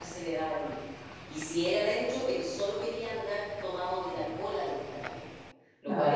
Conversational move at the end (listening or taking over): listening